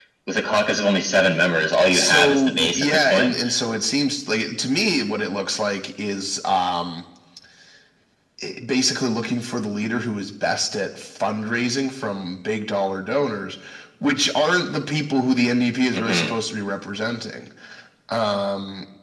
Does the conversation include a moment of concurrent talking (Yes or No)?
Yes